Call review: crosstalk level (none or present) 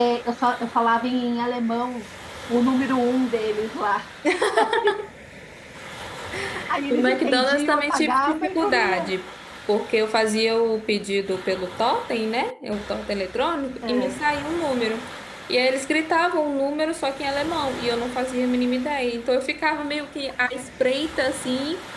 present